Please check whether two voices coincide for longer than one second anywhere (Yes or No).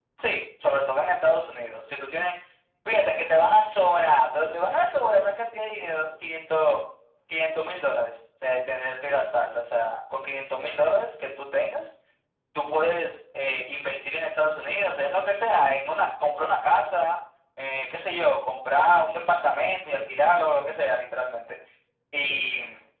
No